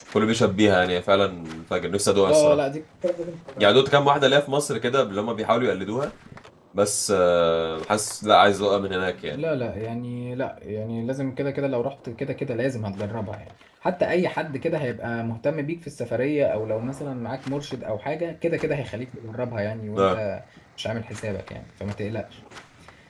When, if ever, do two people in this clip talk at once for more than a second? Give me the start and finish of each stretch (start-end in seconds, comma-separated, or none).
none